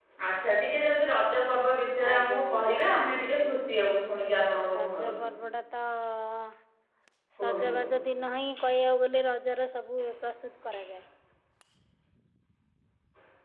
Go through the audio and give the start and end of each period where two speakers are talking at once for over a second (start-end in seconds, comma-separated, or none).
2.1-3.5